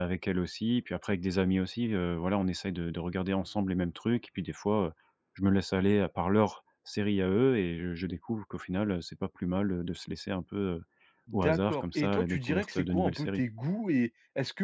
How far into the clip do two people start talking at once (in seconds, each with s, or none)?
11.3 s